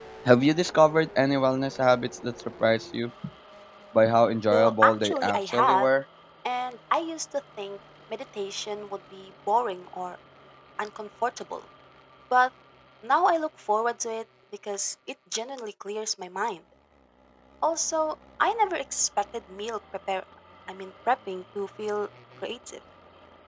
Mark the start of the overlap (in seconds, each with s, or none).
4.5 s